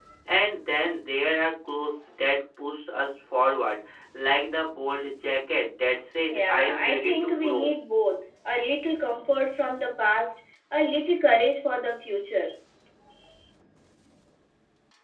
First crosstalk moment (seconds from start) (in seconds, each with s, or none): 6.3 s